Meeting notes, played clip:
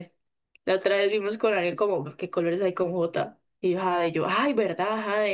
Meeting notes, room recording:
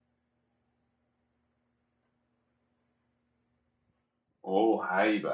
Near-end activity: present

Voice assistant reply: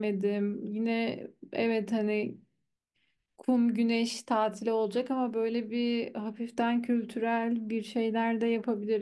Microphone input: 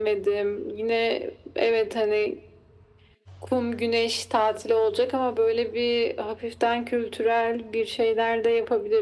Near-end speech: none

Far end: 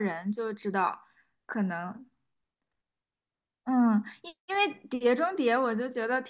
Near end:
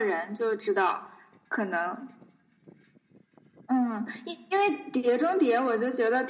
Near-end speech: none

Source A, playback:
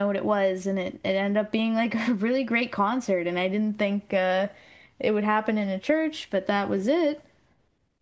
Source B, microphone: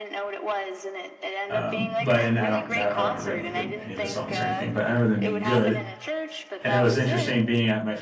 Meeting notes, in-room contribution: present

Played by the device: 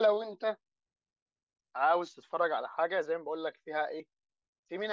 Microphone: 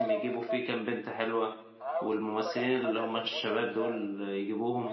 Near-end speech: present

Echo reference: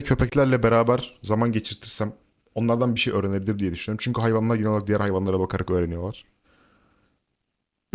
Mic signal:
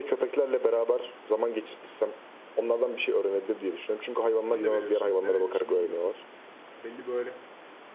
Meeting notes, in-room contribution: present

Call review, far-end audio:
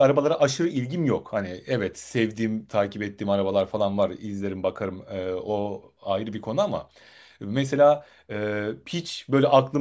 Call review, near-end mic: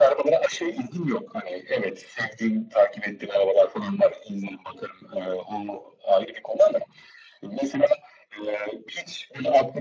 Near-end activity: none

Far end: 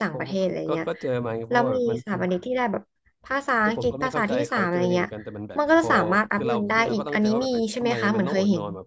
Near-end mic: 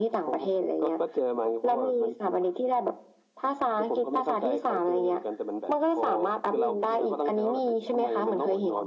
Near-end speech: none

